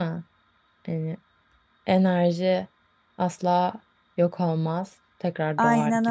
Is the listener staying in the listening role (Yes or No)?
No